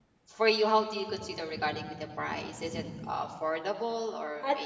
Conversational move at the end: taking over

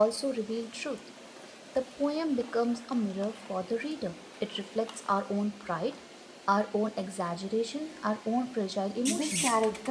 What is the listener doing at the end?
taking over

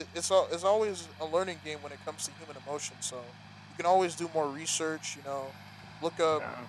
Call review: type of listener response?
listening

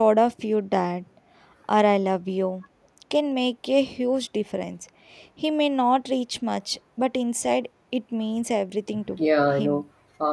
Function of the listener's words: taking over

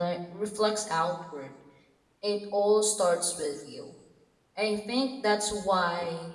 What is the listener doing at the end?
listening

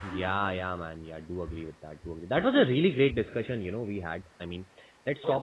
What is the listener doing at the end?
listening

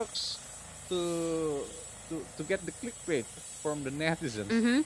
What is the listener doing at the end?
taking over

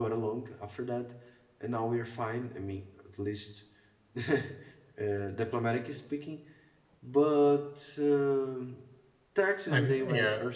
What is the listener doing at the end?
listening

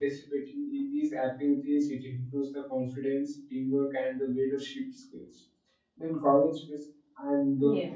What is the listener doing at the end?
listening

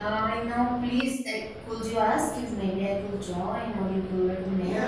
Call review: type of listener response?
taking over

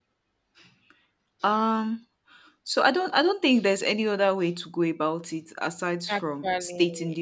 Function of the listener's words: listening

